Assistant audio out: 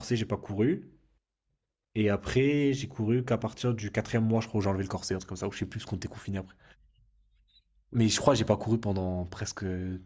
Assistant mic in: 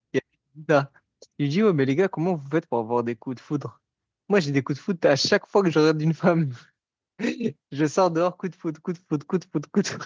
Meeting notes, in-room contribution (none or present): present